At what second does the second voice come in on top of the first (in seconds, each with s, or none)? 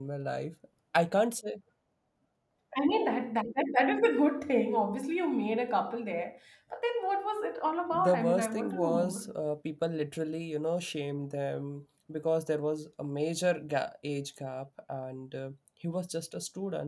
7.9 s